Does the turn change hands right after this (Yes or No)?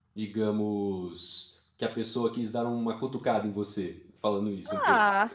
Yes